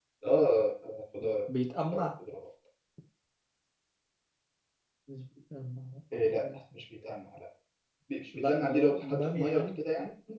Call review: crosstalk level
present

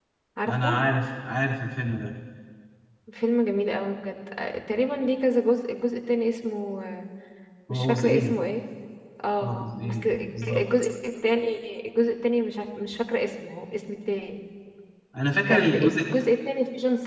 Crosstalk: present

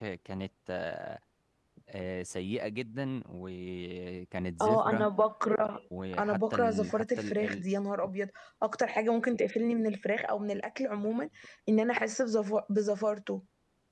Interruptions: present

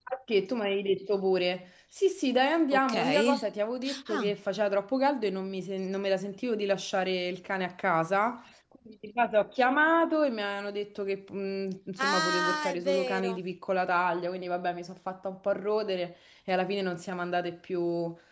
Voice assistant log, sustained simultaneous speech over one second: present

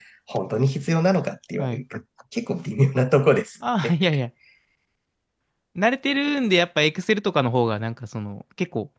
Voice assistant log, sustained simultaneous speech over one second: none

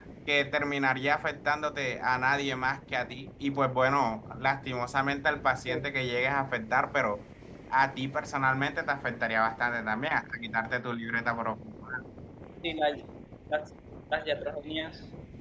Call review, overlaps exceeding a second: none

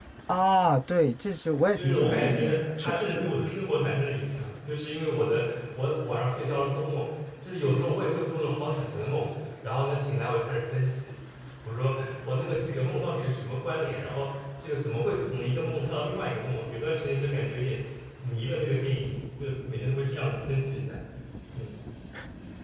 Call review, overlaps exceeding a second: present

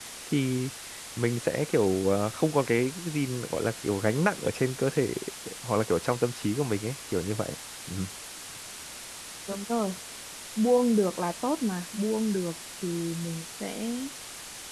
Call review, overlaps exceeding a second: none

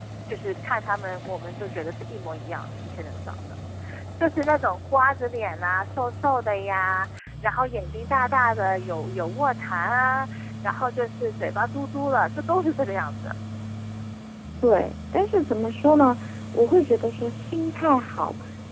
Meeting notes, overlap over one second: none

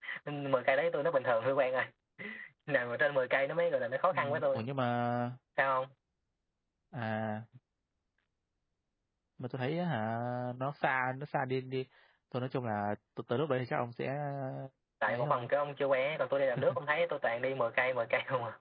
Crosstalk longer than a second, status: none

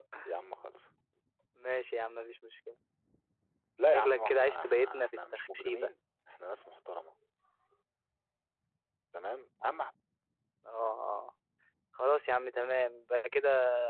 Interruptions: present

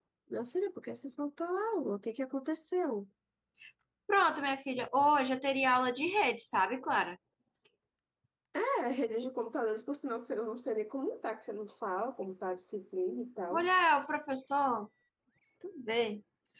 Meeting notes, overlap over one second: none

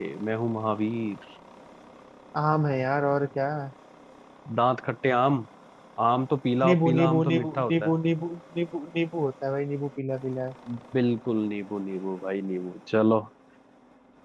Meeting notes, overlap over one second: present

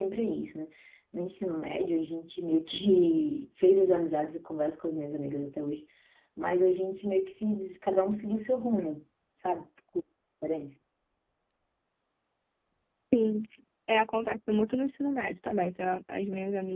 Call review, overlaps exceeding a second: none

